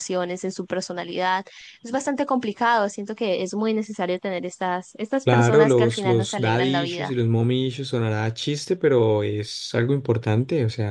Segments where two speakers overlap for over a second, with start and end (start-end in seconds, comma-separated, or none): 5.3-7.1